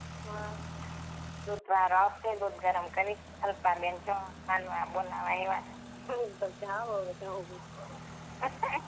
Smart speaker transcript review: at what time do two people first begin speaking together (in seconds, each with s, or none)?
none